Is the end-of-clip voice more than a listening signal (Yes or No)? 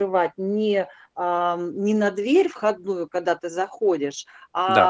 No